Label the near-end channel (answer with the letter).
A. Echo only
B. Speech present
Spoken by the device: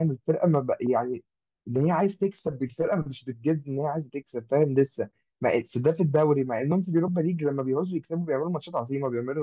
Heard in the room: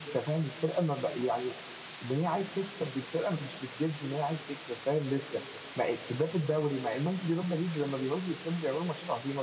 A